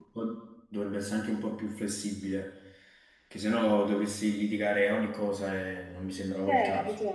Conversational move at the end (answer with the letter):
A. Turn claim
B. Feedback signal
A